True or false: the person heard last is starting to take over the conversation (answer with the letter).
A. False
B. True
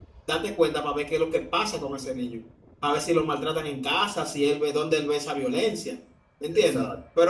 A